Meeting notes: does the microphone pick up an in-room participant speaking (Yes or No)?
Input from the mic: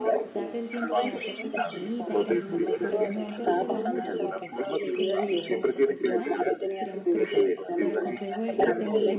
Yes